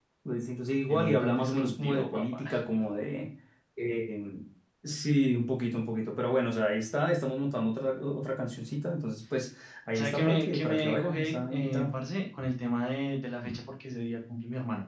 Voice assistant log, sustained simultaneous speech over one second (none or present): present